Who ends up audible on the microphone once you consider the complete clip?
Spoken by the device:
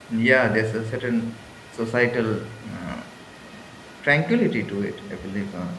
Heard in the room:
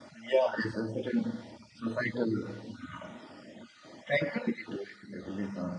echo only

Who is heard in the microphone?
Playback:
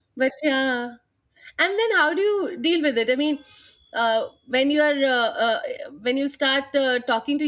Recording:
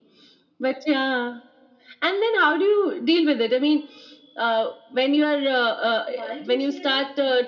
both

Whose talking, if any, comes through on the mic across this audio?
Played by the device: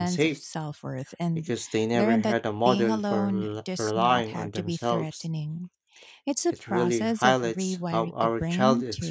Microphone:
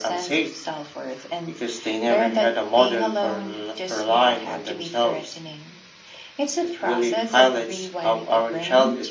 echo only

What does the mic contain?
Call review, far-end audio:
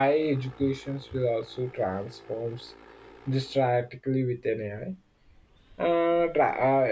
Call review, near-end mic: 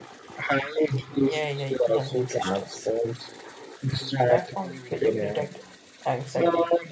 both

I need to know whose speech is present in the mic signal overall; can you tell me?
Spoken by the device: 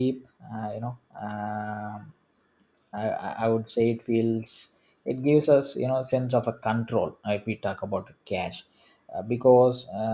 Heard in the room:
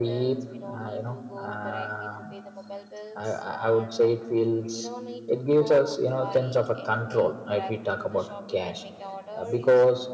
both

